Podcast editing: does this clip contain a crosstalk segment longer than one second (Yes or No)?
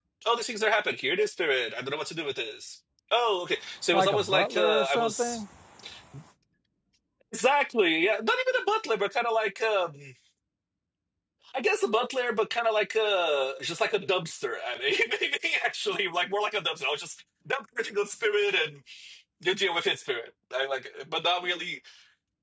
Yes